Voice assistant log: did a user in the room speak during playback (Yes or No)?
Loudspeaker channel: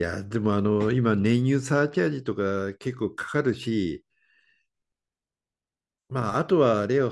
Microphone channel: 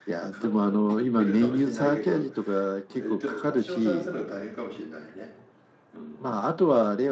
Yes